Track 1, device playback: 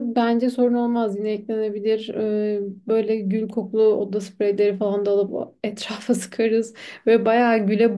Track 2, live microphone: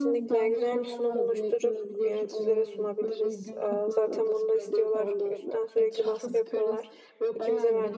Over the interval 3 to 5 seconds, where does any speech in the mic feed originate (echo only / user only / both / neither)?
both